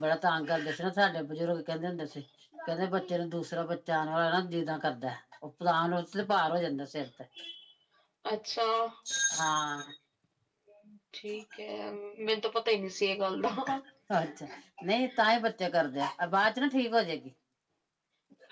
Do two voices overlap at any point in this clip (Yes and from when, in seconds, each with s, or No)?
No